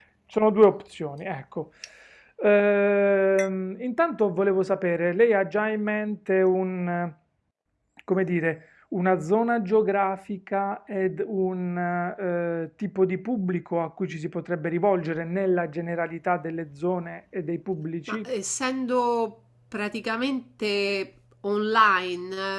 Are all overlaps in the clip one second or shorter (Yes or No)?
Yes